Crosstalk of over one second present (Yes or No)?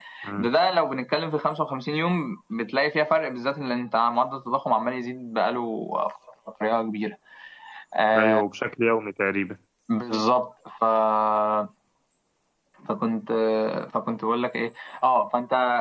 No